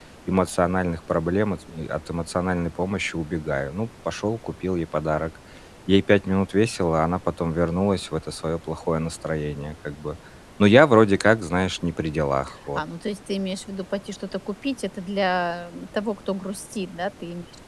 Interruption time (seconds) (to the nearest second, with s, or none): none